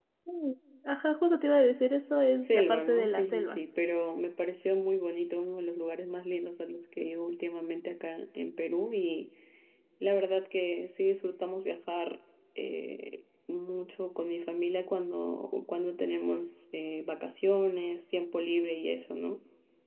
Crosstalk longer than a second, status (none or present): present